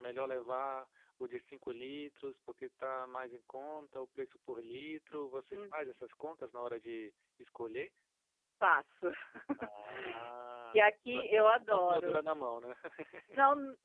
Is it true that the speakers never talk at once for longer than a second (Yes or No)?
No